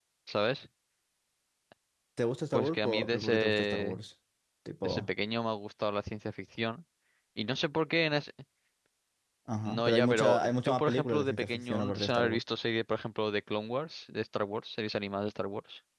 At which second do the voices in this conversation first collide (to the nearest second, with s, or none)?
3 s